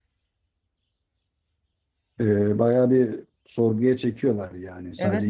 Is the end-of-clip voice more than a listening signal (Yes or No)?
Yes